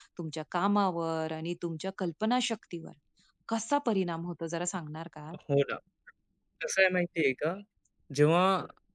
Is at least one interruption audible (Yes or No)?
No